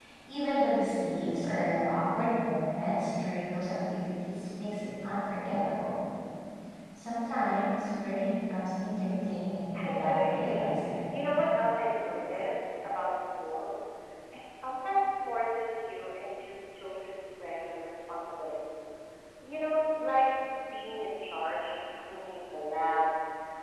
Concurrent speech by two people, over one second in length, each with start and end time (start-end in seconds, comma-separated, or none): 9.8-11.0